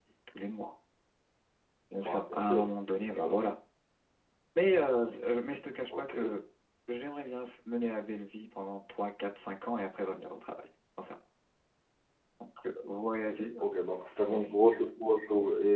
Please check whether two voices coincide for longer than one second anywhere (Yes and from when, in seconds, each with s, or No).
Yes, from 1.9 s